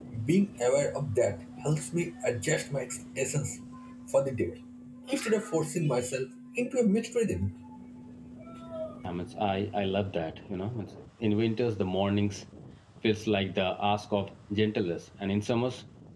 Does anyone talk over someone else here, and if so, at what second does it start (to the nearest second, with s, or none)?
none